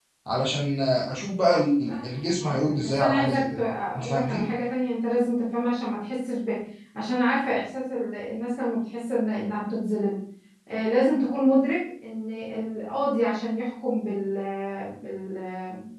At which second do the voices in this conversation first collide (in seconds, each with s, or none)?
1.8 s